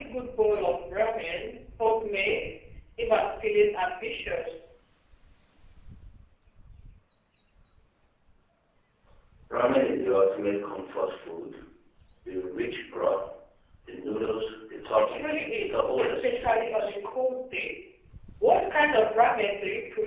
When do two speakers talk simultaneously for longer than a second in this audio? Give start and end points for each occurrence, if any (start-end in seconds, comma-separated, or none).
15.0-17.0